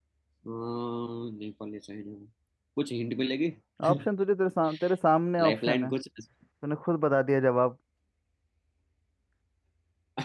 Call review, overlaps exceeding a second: none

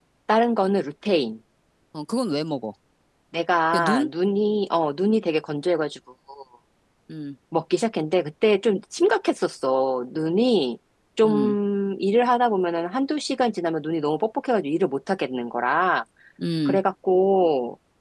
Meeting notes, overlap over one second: none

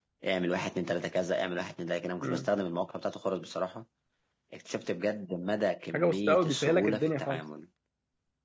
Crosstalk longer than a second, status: present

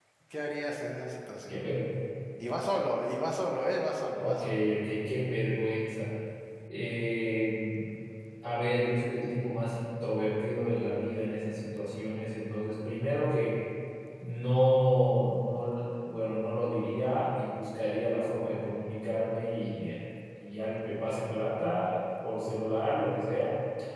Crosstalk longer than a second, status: none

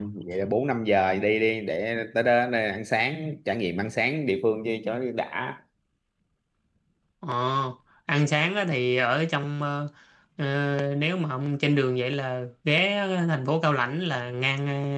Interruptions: none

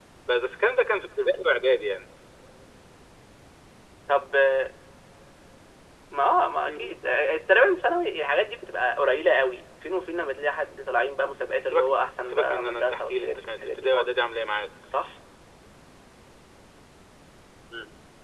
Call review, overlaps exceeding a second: present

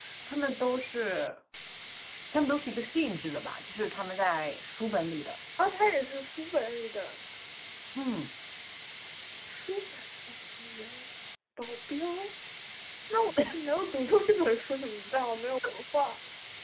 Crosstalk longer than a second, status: none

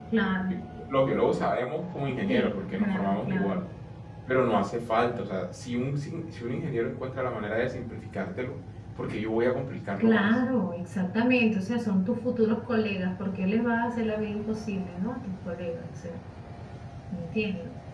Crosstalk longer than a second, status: present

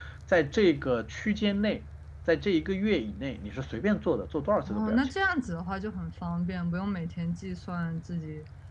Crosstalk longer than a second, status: none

